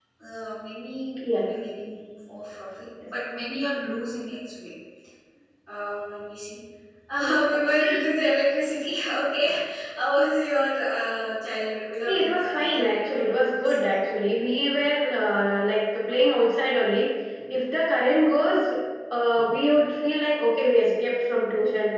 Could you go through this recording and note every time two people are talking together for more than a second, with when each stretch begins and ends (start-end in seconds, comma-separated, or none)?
12.1-13.8